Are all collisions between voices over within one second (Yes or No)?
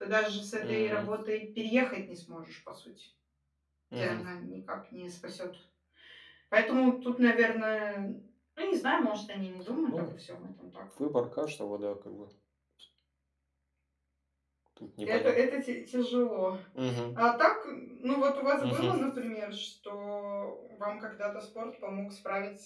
Yes